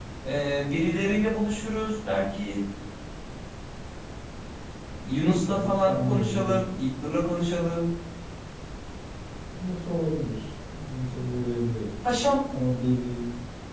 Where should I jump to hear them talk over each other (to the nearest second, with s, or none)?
5 s